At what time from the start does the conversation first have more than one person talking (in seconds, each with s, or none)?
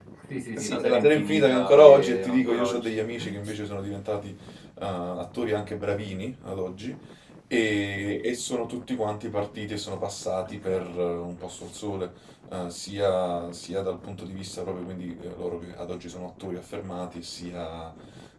0.6 s